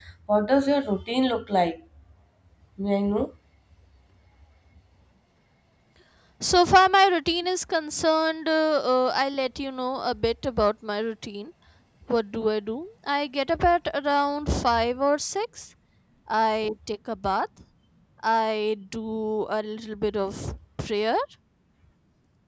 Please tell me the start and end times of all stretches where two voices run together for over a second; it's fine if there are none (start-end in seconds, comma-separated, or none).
none